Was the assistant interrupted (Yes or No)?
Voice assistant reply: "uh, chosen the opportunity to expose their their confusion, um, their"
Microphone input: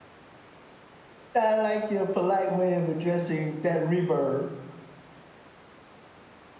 Yes